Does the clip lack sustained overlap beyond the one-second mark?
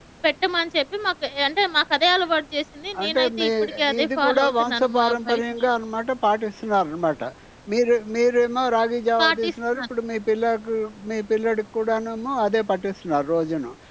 No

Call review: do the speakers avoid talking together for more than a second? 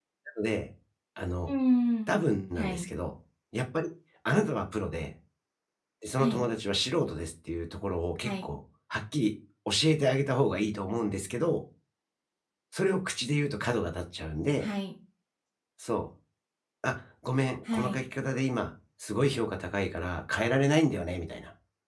Yes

